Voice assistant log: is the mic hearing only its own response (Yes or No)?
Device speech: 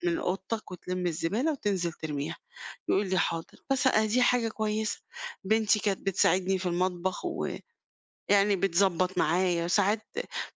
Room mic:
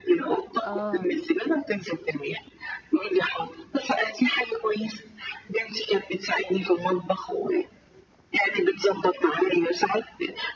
No